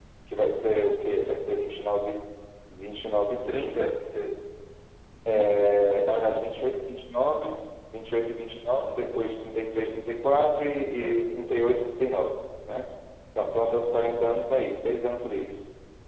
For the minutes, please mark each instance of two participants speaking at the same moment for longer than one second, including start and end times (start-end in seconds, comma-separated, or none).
none